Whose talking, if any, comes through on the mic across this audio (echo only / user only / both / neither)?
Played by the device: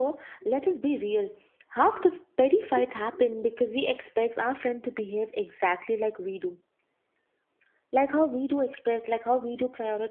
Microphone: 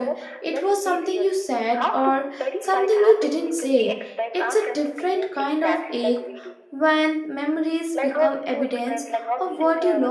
both